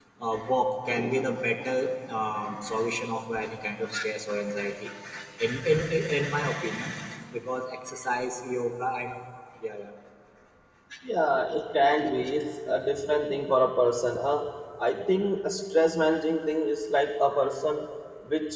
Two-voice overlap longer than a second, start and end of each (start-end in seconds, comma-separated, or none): none